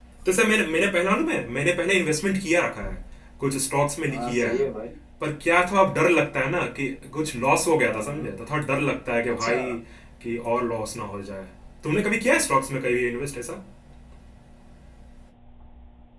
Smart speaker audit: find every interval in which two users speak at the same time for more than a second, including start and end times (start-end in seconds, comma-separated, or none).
none